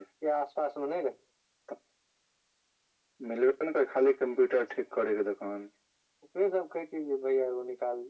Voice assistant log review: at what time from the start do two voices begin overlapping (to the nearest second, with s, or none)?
none